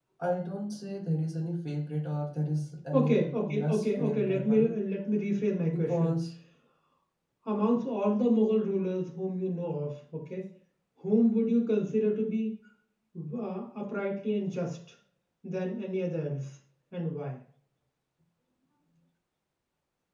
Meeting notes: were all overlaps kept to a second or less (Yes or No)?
No